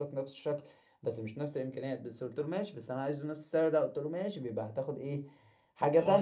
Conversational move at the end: taking over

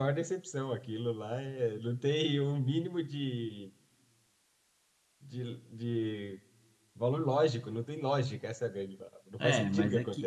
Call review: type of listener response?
taking over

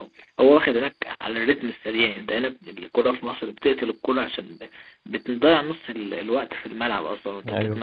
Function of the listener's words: taking over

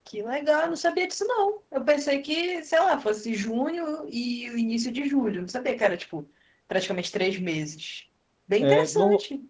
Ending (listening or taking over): taking over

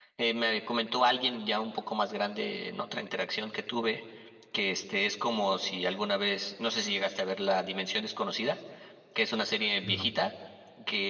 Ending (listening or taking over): listening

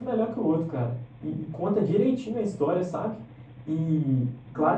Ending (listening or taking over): listening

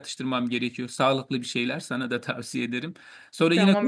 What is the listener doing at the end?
taking over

